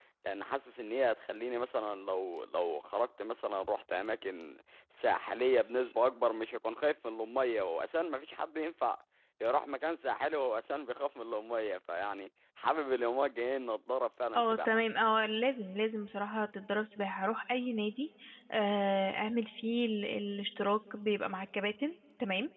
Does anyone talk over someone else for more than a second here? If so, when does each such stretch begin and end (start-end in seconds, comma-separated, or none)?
none